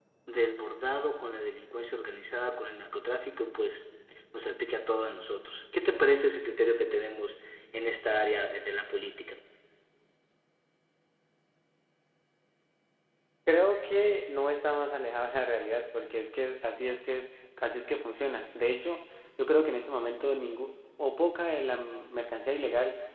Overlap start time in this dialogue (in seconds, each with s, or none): none